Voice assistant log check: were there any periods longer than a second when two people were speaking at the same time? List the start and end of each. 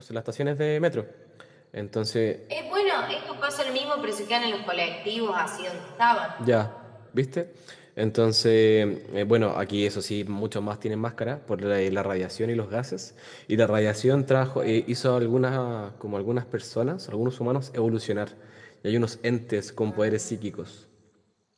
none

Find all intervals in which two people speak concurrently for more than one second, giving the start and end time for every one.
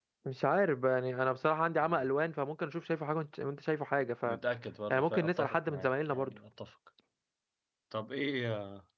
4.9-6.4

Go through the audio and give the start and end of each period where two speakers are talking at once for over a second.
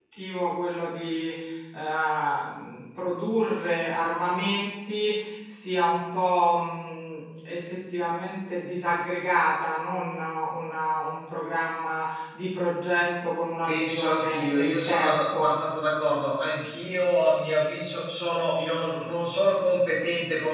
13.7-15.5

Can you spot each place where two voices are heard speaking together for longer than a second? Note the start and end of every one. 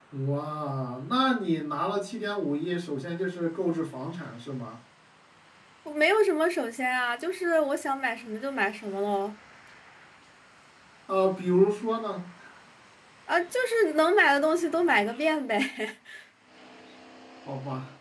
none

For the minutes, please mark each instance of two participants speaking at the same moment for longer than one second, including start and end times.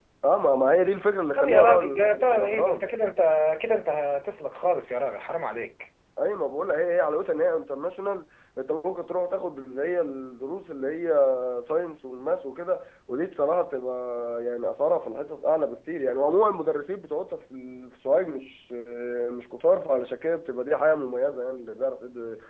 1.4-2.9

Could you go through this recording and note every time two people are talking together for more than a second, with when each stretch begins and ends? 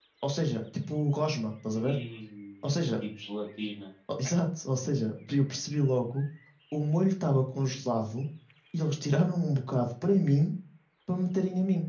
none

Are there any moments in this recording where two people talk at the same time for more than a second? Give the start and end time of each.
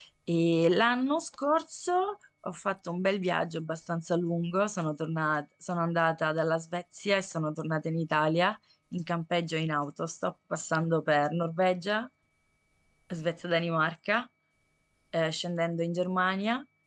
none

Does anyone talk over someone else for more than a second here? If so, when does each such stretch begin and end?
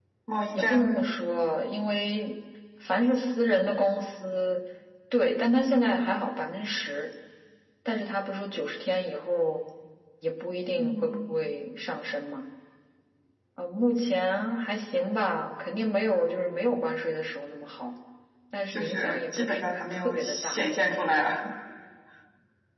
18.7-20.6

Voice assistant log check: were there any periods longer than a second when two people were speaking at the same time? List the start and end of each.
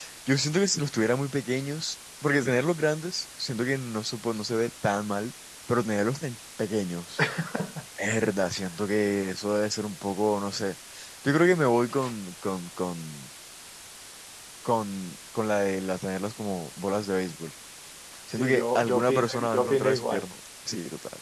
18.4-20.2

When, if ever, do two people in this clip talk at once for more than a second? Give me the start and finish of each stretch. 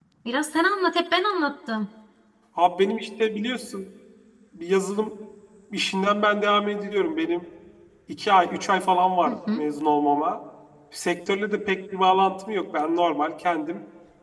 none

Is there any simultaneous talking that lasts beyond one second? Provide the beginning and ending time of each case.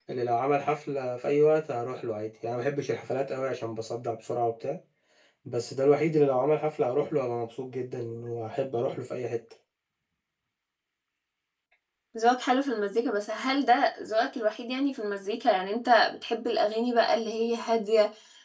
none

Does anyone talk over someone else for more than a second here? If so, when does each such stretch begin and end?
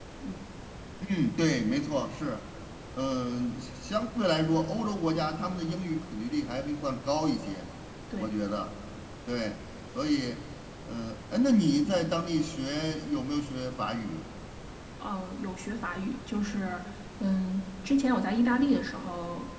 none

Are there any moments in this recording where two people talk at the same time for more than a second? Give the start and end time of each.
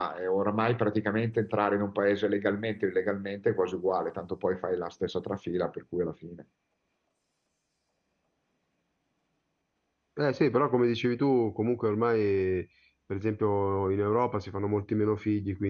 none

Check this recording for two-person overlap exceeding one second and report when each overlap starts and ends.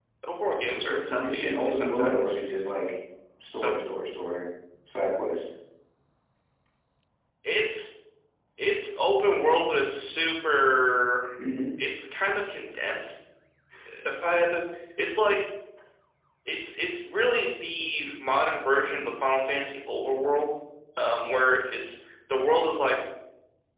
0.7-2.4

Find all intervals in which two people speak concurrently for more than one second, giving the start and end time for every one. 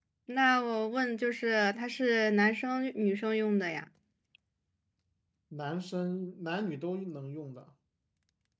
none

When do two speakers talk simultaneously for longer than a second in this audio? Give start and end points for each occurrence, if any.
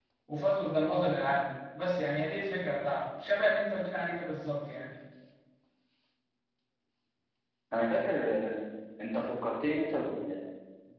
none

